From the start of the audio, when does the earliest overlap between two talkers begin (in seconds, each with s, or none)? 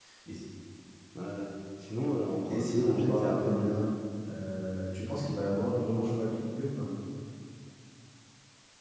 2.5 s